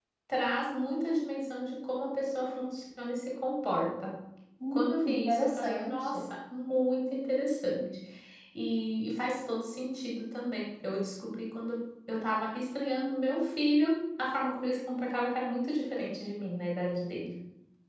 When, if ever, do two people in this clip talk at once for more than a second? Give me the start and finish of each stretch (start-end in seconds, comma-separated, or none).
4.7-6.2